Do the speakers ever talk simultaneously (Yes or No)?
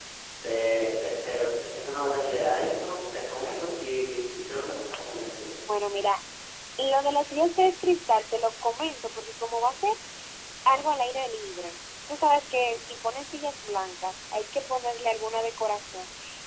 No